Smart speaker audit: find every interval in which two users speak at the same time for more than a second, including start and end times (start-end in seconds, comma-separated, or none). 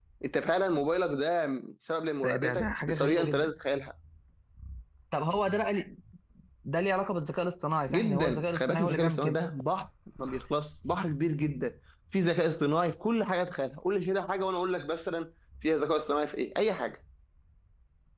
2.2-3.5, 7.9-9.4